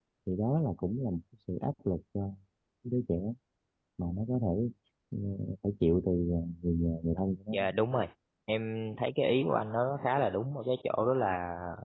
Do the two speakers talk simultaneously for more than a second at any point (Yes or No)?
No